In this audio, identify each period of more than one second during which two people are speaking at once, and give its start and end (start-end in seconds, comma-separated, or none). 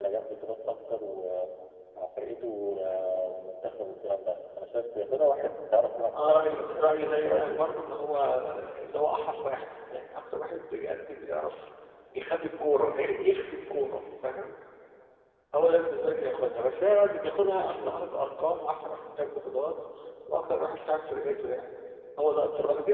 6.3-7.6